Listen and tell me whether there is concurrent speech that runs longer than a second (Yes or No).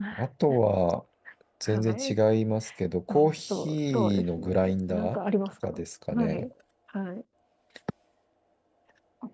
Yes